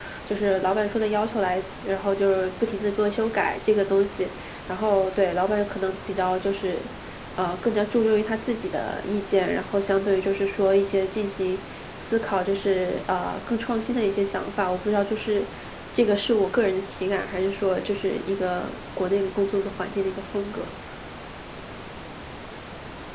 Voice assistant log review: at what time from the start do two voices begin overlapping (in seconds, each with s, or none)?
none